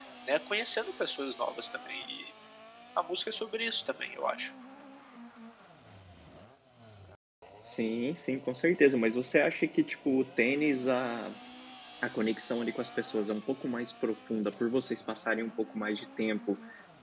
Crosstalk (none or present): none